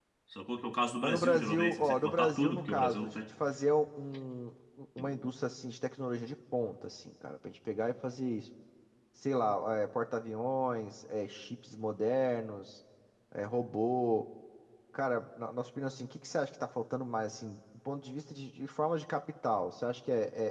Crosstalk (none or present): present